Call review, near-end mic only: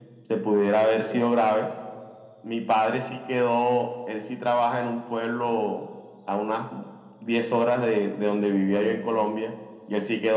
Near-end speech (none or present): none